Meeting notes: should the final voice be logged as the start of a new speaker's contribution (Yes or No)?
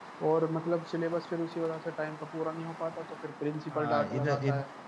Yes